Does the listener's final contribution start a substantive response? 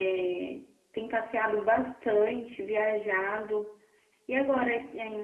No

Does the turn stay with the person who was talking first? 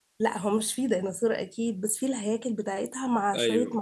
Yes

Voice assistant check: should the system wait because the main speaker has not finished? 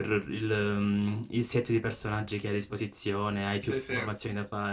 Yes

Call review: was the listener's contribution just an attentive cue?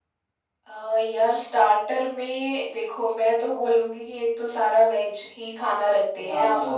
No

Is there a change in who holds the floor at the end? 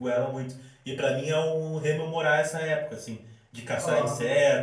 No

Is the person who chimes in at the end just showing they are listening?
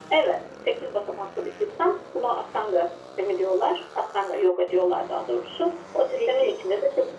Yes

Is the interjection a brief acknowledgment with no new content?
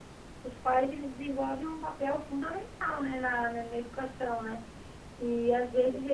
Yes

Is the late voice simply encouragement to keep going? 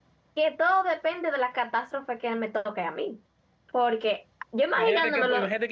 No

